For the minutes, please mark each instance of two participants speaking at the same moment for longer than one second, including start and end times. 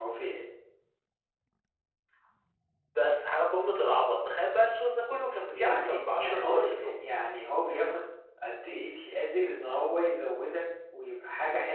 5.5-6.9

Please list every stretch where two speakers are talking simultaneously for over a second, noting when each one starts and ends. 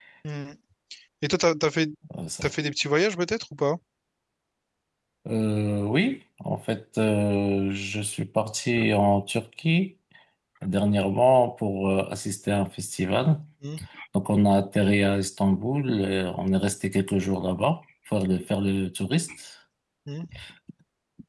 none

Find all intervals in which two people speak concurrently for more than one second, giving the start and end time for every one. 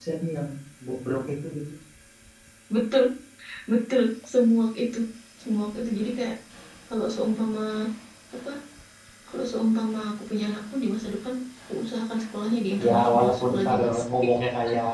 12.8-14.0

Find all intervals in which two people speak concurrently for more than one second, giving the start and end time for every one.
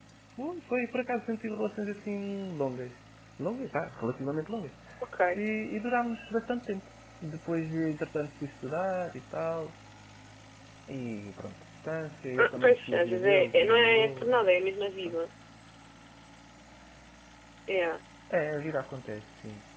12.4-14.5

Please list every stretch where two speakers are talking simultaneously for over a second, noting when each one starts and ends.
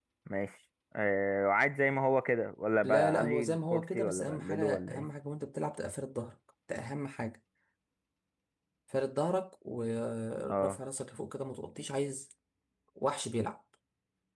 2.8-5.1

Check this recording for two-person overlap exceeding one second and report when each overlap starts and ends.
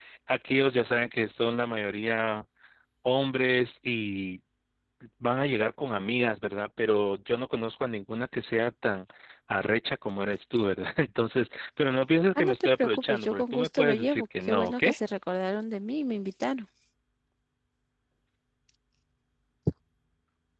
12.3-14.8

